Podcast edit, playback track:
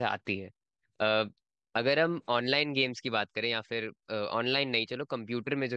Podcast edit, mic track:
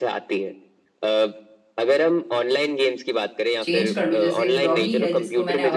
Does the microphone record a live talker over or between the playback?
Yes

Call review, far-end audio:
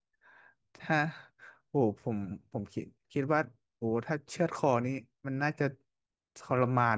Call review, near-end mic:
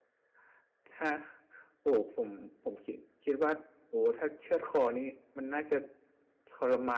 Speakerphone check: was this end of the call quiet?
Yes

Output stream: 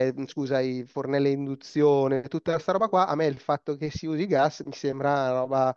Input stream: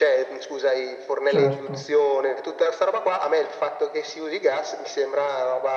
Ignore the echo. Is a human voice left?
Yes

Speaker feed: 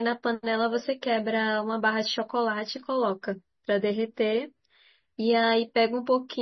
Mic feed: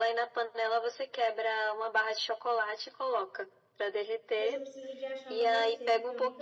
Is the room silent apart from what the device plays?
No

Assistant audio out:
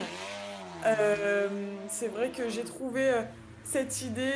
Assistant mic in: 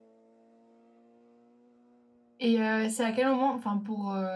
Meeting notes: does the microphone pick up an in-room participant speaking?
Yes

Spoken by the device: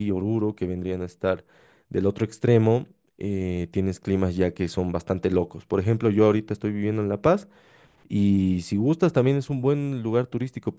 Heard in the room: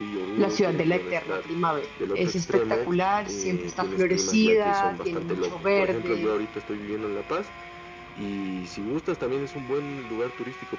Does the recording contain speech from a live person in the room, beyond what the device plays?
Yes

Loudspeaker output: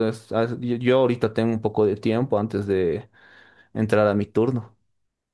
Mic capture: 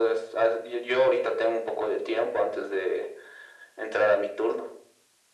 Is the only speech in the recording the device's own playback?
Yes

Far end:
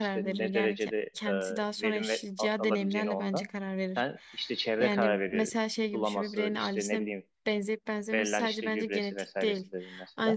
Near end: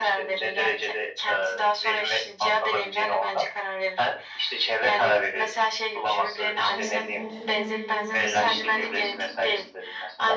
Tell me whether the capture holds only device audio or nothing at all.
No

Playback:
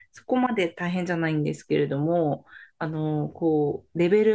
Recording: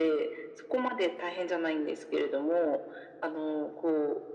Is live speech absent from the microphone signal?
Yes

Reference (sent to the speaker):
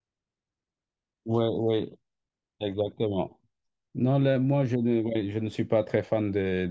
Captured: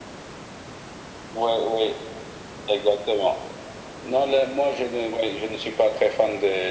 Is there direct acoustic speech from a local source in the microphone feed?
No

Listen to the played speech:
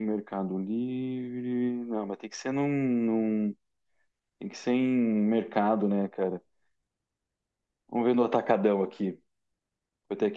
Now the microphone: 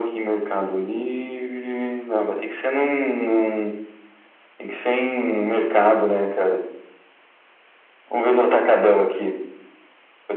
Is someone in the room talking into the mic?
No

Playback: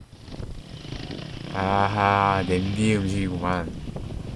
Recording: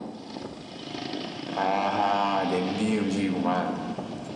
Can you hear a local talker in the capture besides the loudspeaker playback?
No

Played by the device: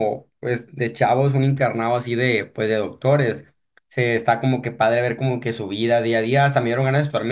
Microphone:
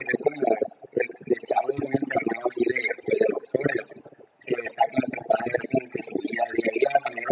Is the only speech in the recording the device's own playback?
Yes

